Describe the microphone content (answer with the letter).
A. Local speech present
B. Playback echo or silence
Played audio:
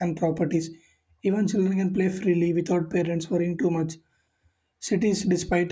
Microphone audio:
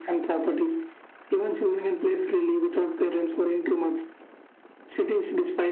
B